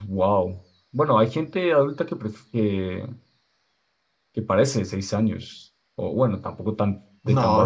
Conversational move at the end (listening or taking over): taking over